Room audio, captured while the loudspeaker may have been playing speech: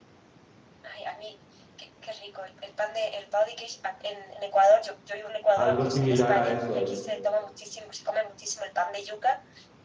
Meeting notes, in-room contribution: present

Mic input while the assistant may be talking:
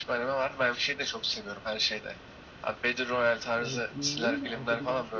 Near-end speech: present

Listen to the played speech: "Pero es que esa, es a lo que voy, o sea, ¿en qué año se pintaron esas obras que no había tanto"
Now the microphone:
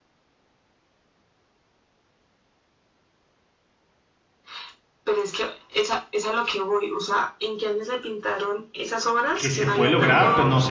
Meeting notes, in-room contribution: present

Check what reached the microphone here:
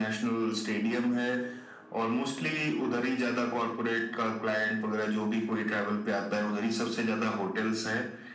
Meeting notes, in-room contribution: none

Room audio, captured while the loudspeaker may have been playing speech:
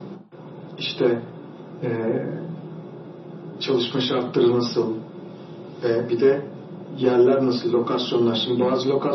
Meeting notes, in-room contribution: none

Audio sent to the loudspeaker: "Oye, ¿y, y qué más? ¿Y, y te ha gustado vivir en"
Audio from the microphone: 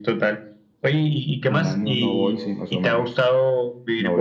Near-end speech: present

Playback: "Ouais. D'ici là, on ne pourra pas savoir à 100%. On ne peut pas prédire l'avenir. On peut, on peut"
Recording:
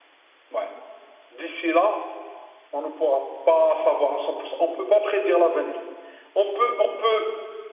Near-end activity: none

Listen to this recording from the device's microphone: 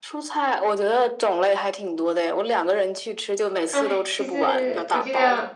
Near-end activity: present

